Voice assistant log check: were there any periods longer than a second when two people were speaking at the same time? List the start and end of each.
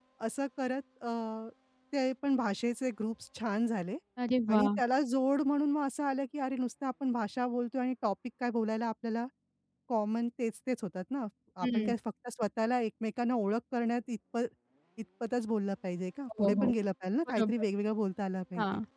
none

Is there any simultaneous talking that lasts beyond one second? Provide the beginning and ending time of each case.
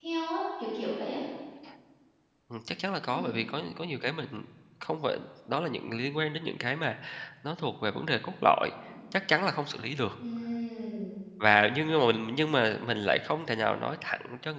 none

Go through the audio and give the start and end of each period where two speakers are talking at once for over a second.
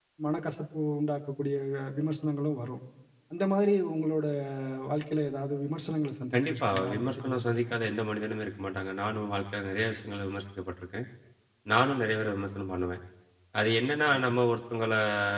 6.3-7.7

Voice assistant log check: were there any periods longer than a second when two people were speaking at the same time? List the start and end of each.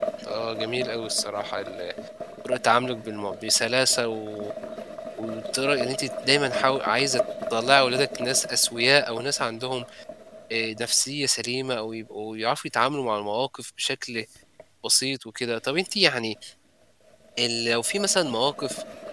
none

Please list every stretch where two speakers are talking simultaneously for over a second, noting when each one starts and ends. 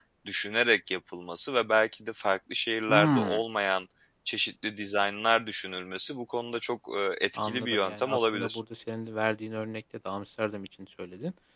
7.4-8.6

